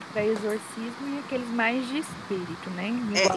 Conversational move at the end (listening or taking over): taking over